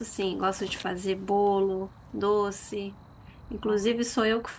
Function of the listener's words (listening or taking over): listening